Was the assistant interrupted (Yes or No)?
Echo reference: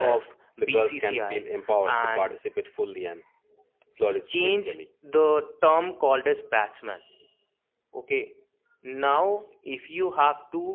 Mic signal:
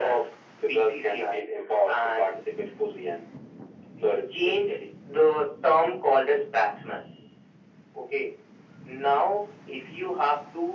No